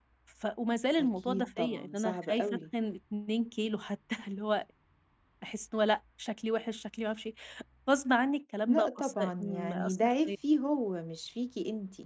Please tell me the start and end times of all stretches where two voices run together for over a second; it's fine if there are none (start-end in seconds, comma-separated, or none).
1.0-2.6, 8.7-10.3